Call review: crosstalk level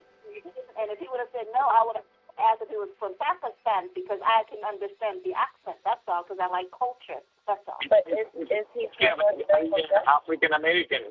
present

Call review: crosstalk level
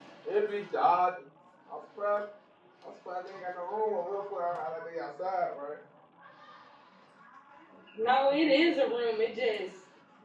none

